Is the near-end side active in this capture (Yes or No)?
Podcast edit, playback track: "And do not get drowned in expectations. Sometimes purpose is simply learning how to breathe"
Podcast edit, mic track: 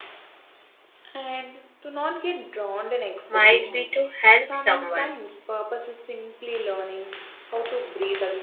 Yes